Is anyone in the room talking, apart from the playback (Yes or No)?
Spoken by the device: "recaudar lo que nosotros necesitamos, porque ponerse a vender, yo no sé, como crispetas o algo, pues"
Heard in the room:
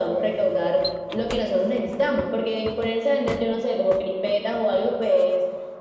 No